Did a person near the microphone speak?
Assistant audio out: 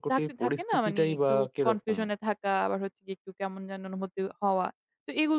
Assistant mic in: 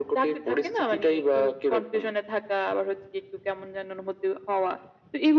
No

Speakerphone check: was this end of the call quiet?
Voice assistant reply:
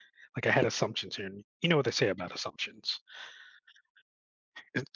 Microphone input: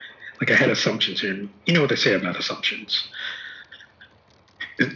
Yes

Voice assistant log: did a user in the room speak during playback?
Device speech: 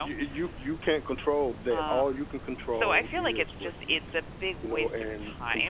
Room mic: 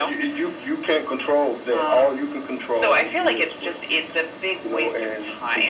No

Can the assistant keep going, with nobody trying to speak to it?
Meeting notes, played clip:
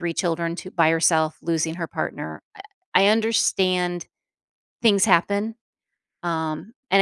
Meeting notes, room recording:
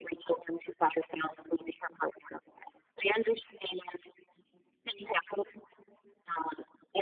Yes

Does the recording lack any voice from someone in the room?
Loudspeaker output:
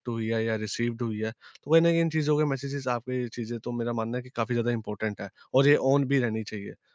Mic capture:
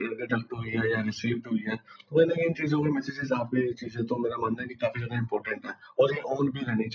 Yes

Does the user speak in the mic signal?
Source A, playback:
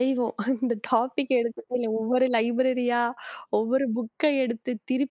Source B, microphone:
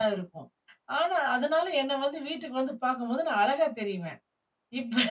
Yes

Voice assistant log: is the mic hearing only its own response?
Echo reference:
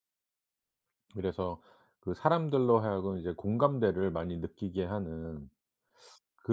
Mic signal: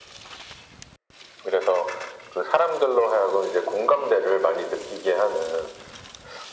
Yes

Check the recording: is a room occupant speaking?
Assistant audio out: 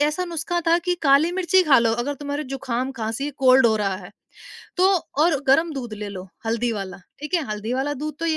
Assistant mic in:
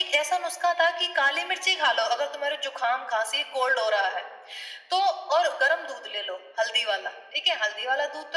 No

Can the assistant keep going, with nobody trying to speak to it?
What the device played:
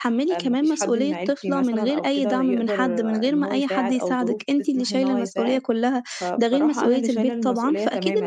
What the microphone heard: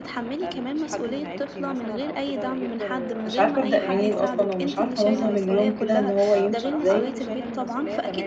No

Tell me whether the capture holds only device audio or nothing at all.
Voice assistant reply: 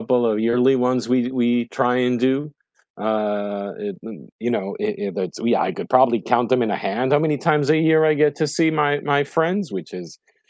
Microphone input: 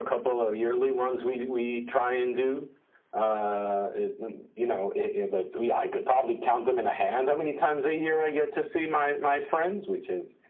Yes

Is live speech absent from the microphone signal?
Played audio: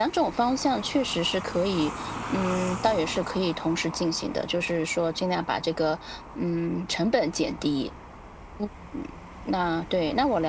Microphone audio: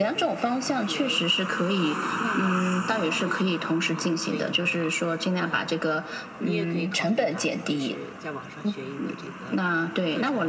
No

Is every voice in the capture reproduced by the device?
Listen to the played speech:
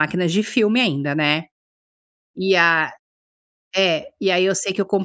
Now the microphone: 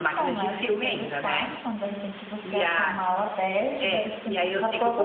No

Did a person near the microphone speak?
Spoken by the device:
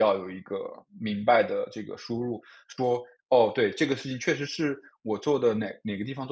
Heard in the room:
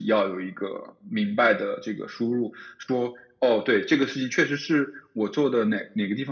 No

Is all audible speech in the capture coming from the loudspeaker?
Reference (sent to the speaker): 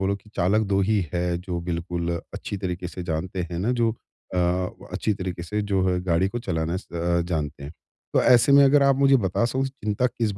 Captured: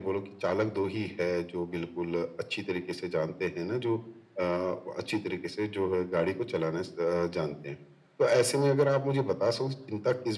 Yes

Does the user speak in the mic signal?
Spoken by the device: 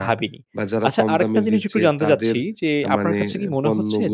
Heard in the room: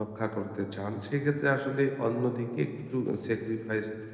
Yes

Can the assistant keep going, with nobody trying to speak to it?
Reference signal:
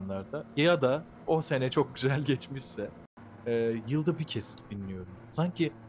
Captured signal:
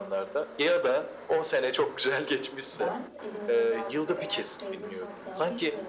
No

